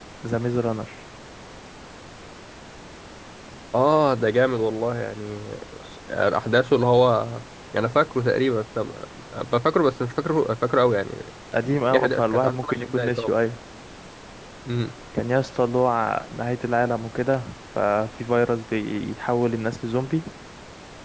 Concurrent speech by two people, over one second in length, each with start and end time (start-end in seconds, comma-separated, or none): 11.9-13.3